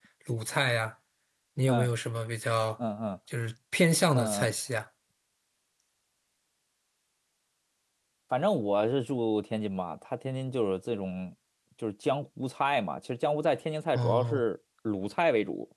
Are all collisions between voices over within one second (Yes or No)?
Yes